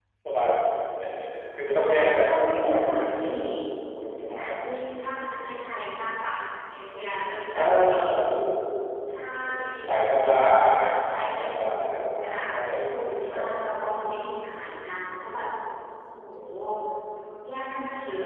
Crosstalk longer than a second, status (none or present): present